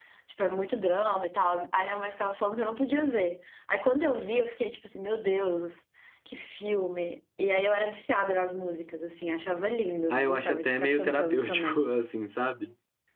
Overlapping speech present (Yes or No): Yes